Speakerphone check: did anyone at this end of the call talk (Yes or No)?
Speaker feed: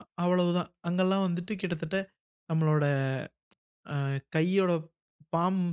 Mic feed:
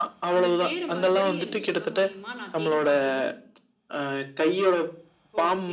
Yes